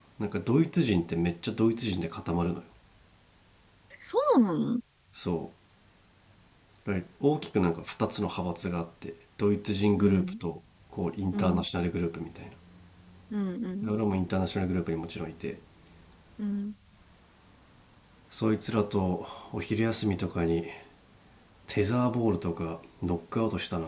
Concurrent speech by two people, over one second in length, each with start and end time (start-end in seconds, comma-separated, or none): none